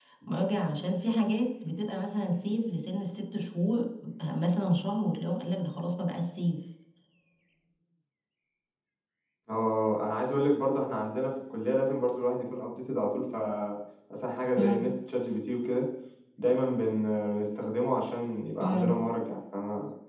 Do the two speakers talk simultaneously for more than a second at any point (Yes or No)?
No